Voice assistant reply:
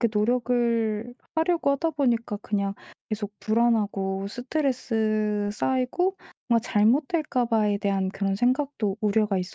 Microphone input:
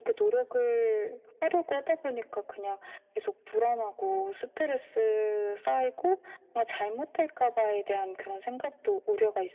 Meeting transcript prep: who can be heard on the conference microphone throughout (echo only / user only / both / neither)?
echo only